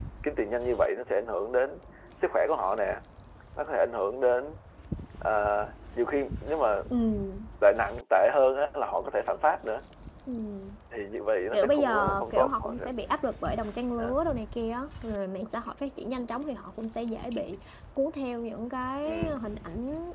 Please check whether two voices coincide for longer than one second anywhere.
Yes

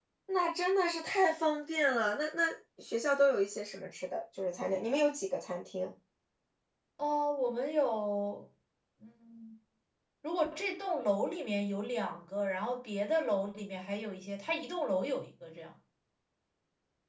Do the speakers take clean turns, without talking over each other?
Yes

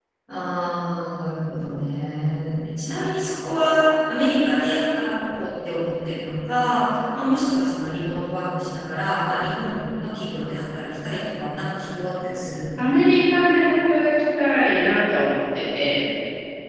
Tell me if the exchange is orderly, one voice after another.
Yes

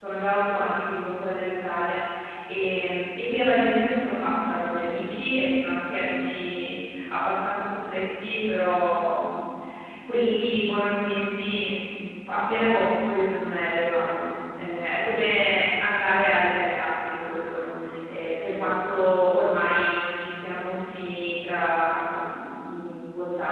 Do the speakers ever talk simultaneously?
No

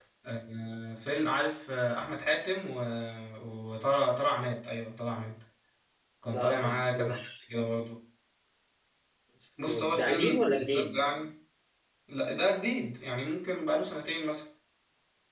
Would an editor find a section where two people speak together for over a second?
Yes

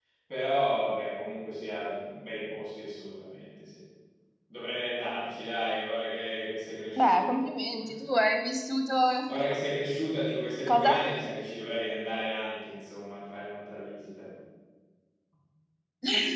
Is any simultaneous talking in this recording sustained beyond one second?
No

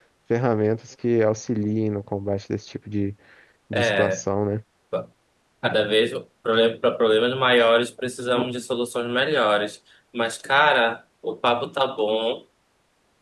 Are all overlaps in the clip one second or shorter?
Yes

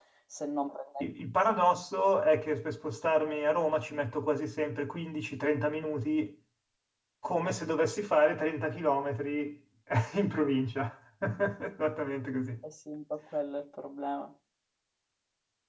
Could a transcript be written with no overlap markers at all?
Yes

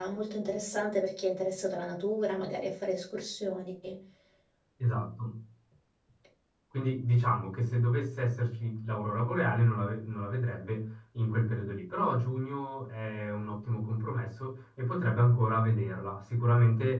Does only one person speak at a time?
Yes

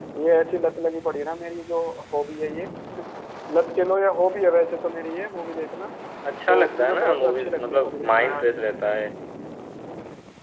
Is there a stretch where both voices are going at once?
Yes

